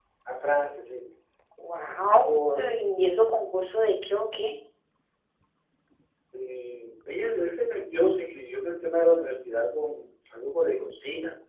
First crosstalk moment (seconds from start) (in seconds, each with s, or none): none